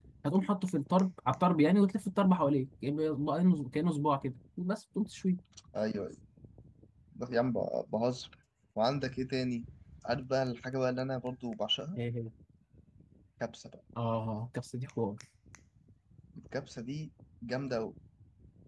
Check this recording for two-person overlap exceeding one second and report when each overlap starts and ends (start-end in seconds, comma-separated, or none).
none